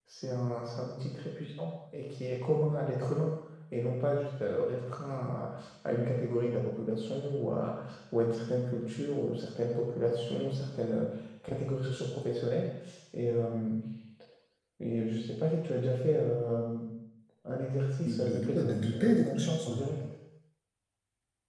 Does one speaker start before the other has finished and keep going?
Yes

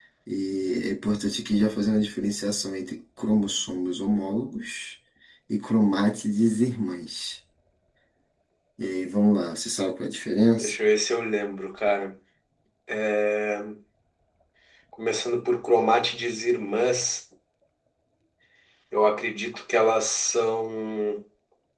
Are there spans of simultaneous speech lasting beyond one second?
No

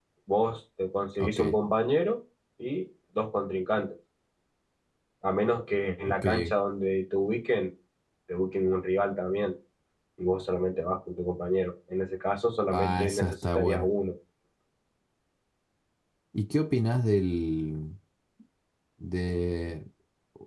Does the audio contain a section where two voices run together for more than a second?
Yes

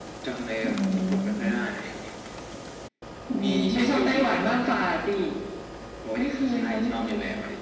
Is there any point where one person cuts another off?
Yes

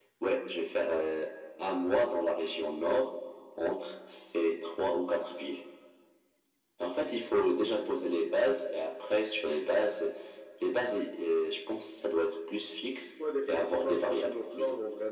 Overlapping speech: Yes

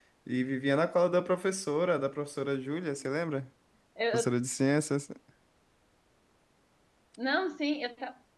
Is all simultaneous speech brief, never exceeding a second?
Yes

